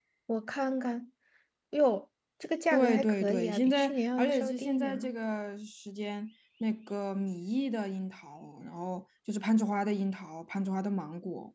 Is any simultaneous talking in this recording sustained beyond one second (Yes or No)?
Yes